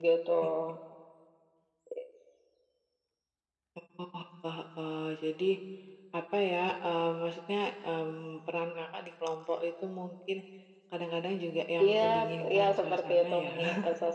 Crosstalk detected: Yes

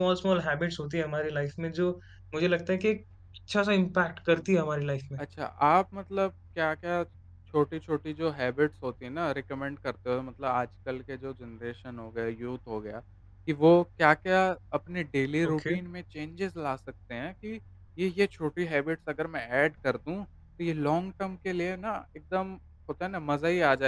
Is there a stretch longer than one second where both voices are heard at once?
No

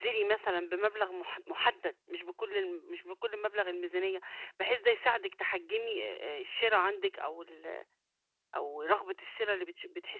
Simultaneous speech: No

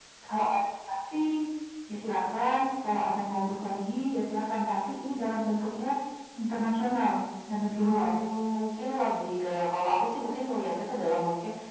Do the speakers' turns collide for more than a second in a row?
No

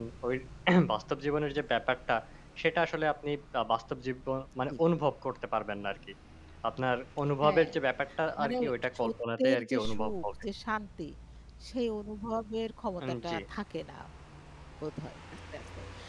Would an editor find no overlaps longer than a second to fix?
No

